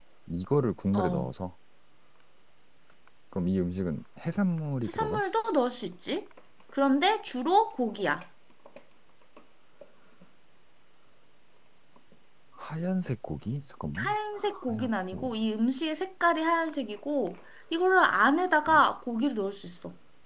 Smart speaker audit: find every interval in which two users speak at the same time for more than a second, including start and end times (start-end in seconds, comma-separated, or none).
14.0-15.3